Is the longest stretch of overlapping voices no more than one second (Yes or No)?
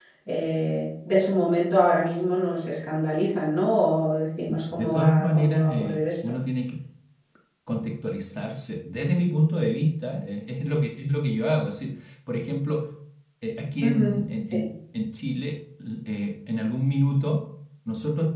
No